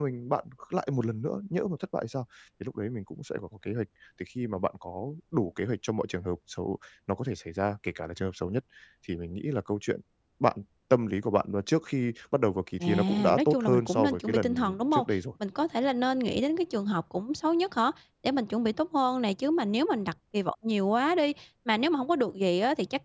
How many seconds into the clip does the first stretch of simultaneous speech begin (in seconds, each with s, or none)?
12.8 s